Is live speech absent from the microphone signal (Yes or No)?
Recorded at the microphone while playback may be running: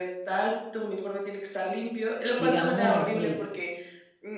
No